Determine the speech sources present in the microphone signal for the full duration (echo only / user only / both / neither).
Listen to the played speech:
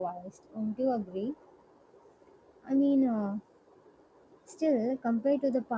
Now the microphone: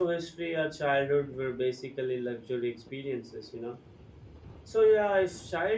user only